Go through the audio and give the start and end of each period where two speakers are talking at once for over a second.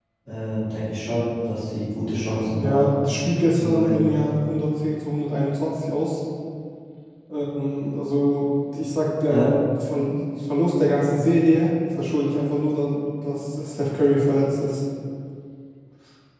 none

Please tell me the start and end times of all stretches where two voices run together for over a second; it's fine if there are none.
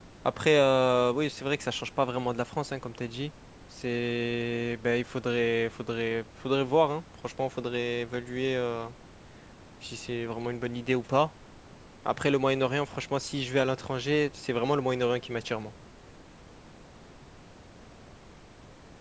none

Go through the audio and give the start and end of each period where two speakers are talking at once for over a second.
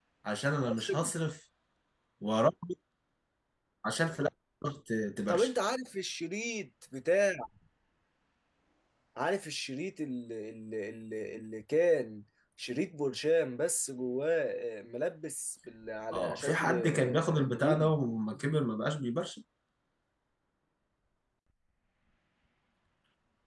16.1-17.9

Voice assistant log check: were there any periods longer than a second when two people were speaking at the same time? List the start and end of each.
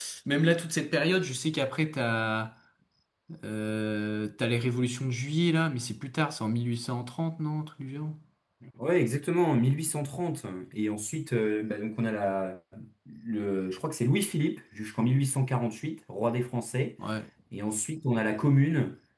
none

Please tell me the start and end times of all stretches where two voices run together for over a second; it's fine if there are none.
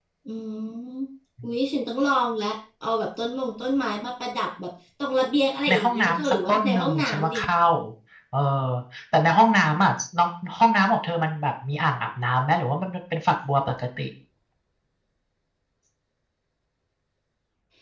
5.7-7.4

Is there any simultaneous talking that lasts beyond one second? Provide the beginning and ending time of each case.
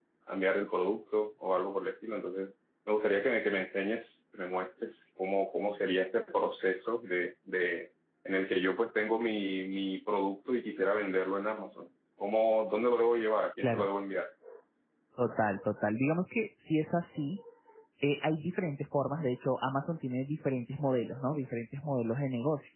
none

